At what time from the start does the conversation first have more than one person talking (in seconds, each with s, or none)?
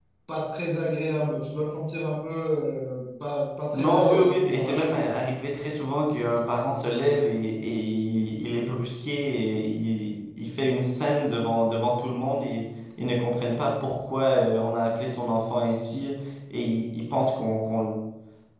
3.7 s